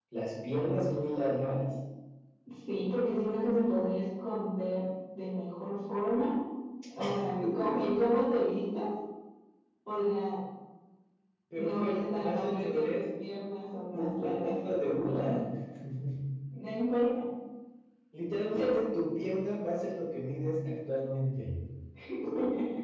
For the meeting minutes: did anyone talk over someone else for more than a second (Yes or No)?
Yes